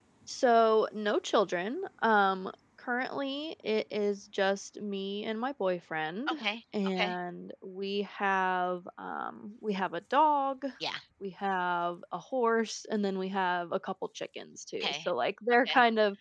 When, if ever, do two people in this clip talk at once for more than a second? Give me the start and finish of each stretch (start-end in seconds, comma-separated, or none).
none